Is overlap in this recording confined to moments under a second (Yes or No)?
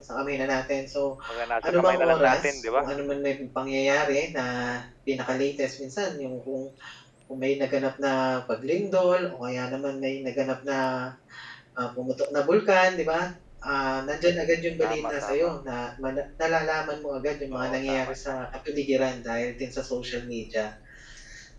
No